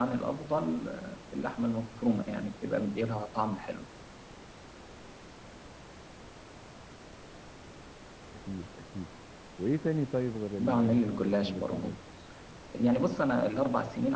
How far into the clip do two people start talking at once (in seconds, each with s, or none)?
10.6 s